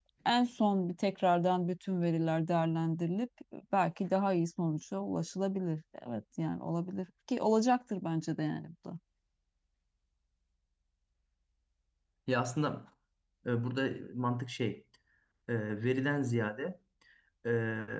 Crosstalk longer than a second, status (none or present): none